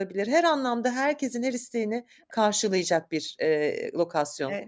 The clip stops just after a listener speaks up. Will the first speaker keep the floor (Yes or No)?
No